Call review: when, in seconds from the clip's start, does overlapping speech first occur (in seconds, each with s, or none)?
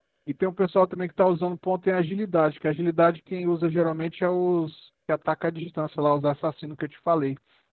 none